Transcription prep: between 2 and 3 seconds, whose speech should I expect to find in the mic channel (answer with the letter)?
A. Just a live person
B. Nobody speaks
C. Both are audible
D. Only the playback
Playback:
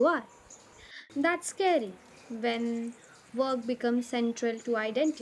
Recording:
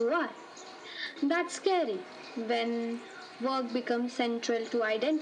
D